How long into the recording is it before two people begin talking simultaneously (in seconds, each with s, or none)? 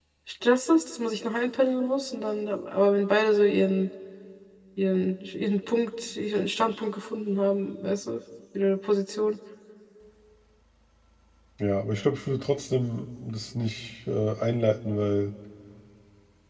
none